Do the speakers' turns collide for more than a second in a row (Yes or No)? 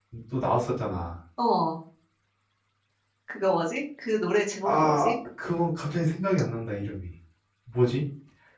No